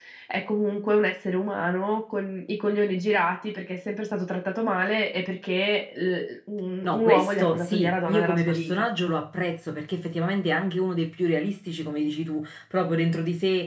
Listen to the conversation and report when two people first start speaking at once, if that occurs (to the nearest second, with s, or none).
7 s